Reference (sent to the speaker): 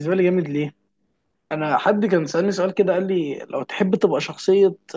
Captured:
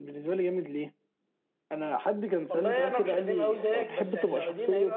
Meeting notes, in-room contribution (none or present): present